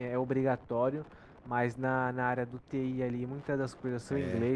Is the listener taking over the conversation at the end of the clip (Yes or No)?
No